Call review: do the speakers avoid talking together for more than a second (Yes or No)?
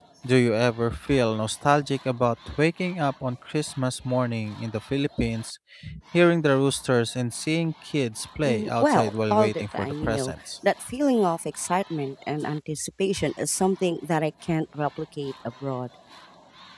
No